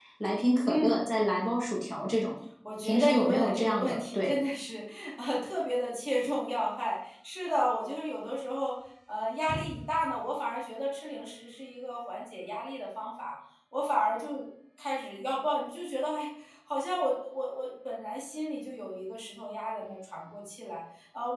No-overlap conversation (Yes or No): No